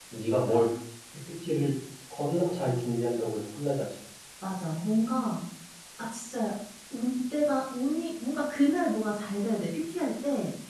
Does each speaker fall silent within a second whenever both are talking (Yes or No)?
Yes